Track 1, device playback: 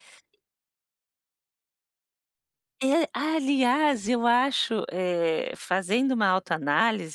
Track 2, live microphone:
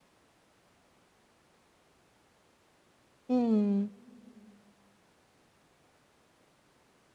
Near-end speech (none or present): present